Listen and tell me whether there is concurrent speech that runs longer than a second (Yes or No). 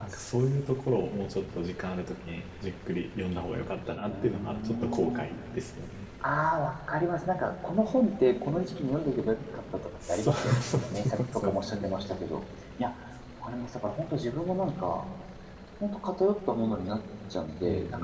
Yes